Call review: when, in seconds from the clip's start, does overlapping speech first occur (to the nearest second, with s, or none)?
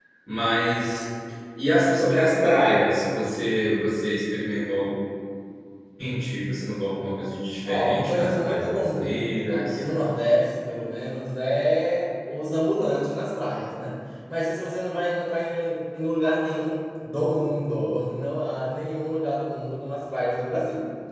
8 s